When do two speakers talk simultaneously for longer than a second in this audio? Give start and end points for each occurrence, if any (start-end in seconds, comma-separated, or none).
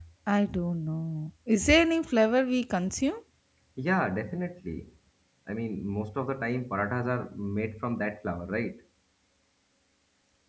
none